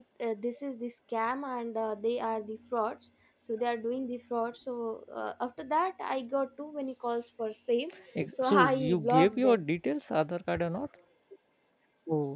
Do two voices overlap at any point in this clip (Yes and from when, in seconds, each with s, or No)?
Yes, from 8.3 s